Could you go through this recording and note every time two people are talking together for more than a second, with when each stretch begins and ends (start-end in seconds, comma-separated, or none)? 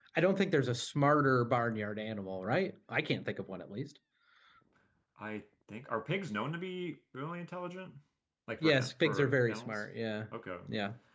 8.6-9.8